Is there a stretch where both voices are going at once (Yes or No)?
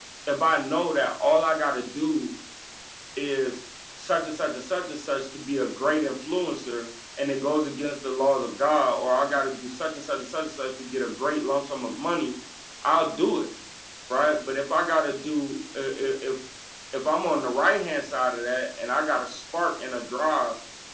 No